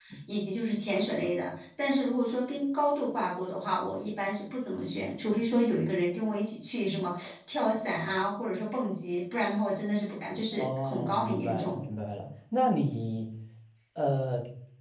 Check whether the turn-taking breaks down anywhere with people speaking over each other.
Yes, from 10.5 s

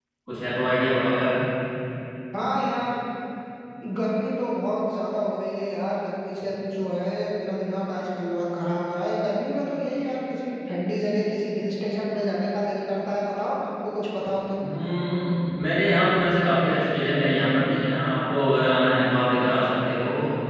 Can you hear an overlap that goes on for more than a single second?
No

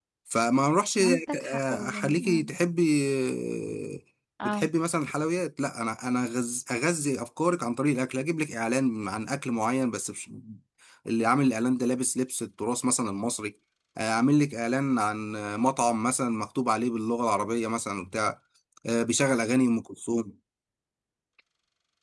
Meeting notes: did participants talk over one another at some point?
Yes, from 1.0 s

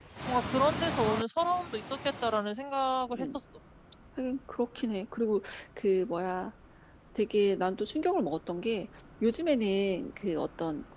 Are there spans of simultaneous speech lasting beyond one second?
No

